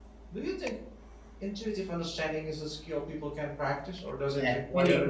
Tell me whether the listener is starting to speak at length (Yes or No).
Yes